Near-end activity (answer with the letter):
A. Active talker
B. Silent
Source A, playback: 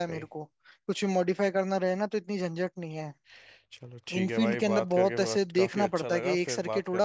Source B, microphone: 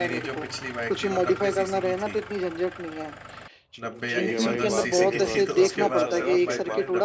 A